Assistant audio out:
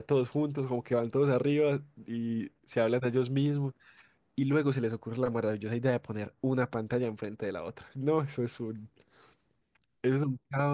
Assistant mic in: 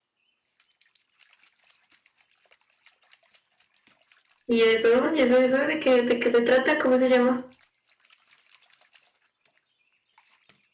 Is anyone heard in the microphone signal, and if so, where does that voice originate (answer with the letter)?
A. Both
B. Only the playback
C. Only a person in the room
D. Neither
C